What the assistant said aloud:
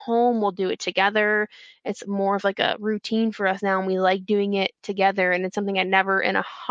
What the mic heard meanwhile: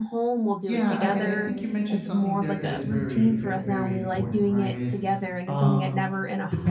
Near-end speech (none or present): present